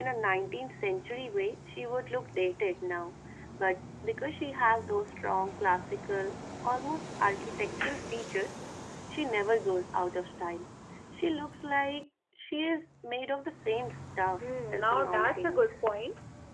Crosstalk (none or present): present